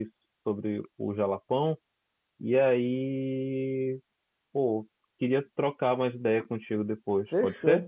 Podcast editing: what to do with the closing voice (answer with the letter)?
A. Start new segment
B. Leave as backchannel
A